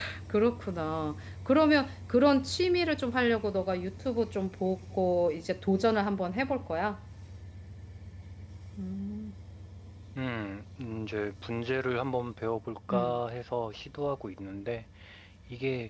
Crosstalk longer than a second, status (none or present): none